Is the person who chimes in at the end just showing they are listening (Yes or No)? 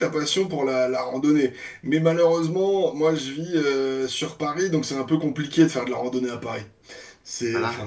No